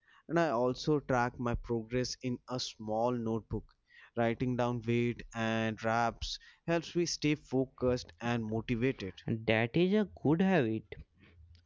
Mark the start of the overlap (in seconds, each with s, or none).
none